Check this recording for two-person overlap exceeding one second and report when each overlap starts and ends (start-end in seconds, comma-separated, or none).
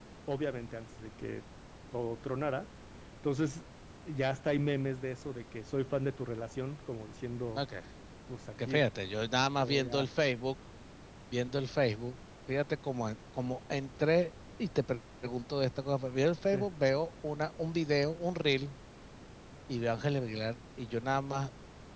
none